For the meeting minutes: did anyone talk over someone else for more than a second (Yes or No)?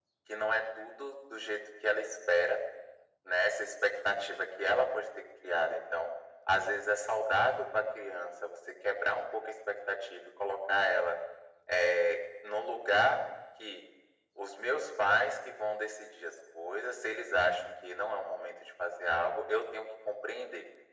No